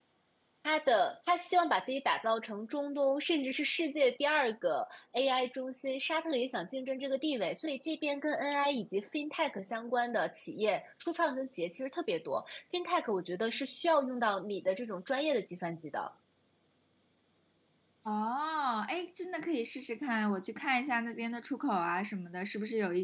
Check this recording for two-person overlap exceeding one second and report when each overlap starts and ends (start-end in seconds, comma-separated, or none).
none